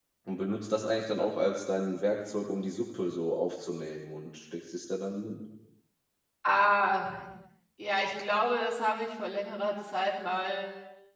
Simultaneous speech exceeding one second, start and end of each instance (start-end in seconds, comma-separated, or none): none